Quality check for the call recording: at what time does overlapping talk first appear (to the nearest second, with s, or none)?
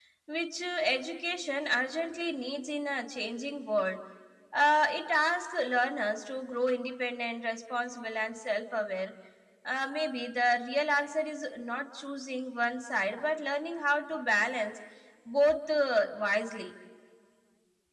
none